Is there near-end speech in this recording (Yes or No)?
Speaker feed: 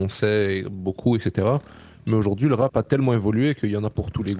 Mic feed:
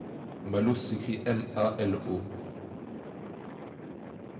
Yes